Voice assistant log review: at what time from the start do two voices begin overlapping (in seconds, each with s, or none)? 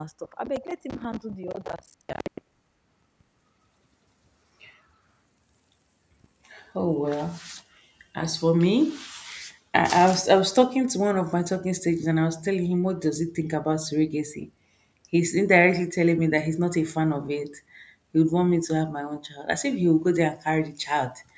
none